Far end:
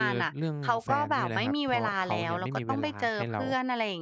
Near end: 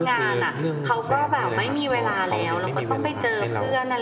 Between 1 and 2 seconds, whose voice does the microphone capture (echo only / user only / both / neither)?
echo only